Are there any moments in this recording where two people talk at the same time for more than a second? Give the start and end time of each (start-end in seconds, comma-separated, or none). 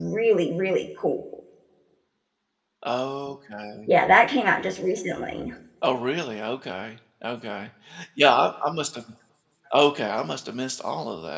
none